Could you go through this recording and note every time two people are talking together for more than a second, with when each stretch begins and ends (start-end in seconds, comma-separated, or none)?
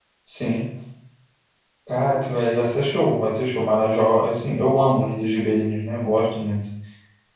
none